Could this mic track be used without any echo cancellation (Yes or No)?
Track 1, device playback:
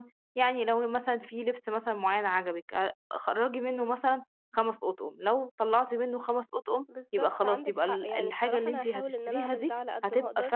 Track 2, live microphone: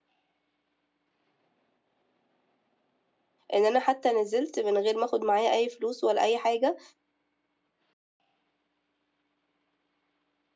Yes